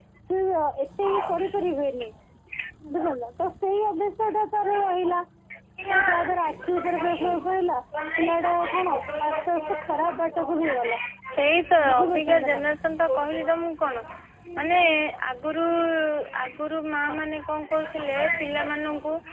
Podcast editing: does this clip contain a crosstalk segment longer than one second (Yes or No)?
Yes